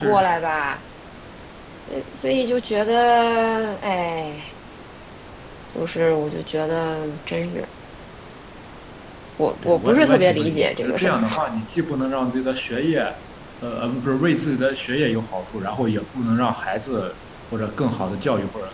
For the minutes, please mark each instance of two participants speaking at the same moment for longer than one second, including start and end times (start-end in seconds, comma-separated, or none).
9.6-11.2